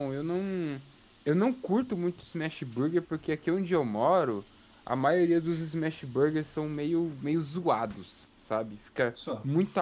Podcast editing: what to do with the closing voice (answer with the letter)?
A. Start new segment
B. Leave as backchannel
B